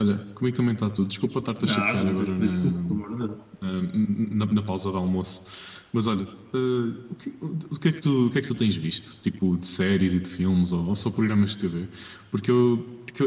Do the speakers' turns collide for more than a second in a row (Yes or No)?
Yes